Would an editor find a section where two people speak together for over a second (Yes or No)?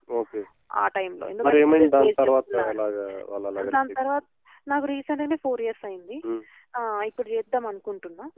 Yes